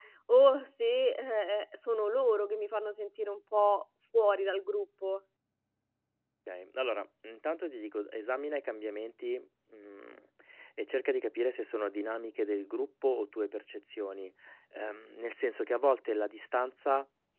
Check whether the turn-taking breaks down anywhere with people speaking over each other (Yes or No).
No